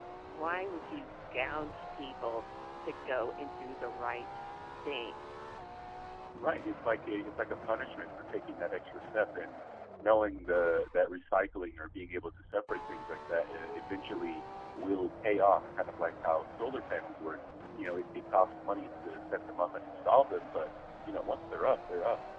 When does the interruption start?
none

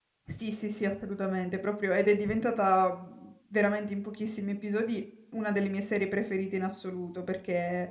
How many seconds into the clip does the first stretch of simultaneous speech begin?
none

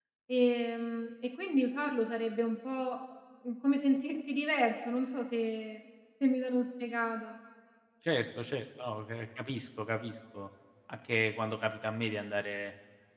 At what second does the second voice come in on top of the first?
none

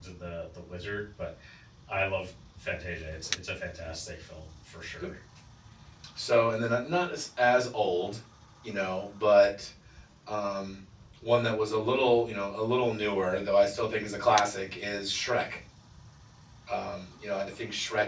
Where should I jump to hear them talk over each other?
none

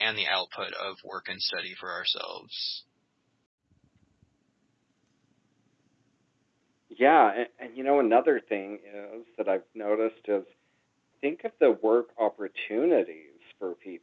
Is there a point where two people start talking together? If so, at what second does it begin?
none

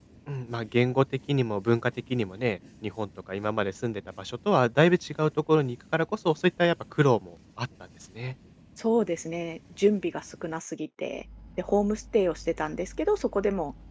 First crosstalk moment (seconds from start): none

